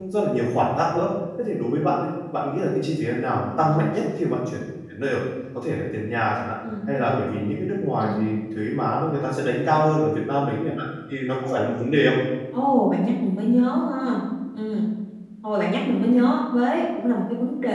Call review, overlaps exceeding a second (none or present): none